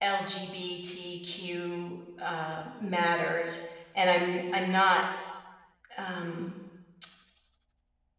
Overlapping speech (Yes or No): No